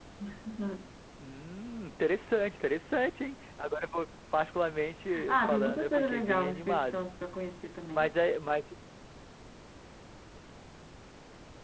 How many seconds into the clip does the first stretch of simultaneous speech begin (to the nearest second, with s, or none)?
5 s